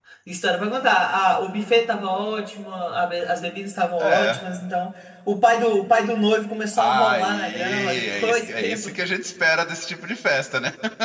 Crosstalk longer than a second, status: present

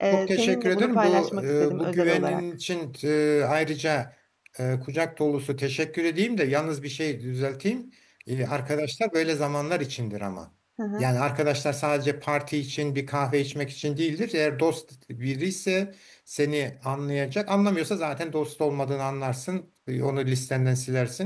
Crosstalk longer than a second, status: present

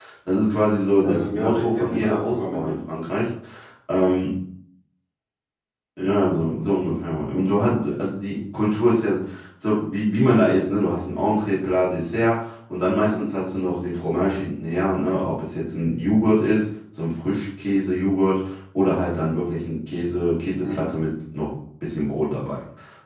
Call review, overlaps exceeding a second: present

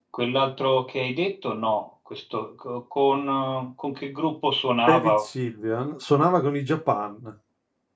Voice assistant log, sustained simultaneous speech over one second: none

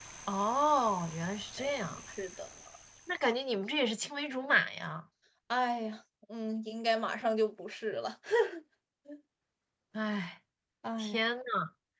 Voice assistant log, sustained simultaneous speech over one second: none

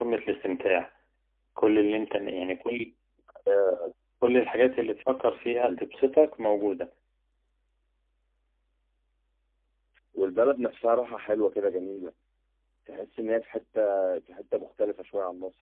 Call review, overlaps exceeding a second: none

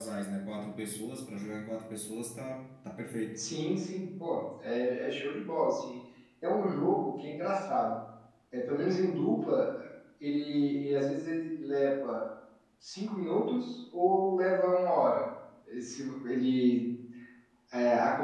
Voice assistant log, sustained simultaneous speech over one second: none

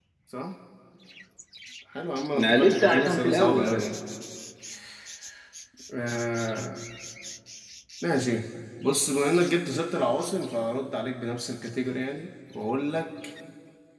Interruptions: present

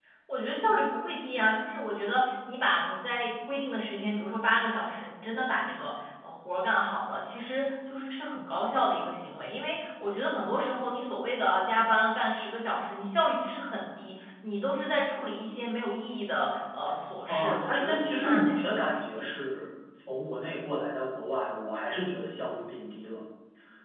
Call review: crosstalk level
present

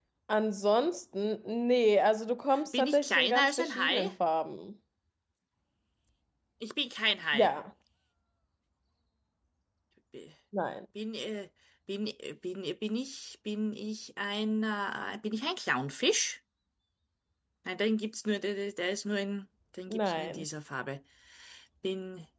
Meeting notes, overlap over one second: present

